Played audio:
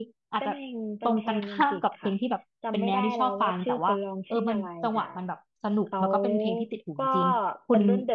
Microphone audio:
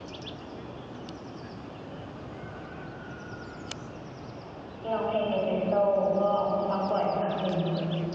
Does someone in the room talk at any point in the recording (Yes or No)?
Yes